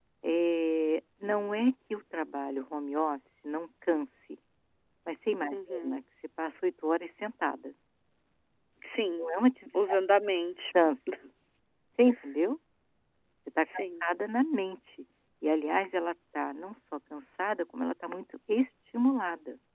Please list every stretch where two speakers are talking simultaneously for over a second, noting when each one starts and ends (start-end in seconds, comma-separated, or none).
none